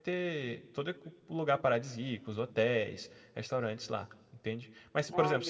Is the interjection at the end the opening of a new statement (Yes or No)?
No